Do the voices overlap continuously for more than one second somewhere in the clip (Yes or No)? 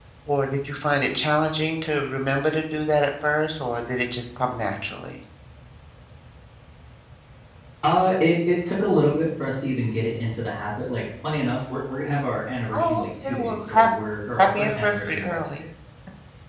Yes